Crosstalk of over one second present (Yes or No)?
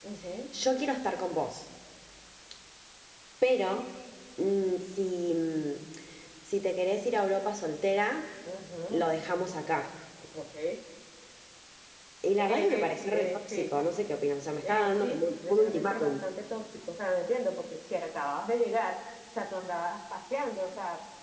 Yes